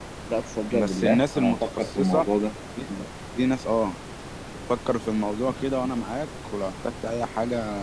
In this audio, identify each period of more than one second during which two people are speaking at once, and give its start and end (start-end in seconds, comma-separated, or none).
0.8-2.3